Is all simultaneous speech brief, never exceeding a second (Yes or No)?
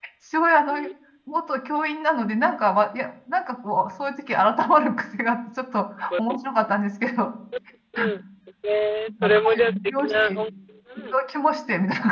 No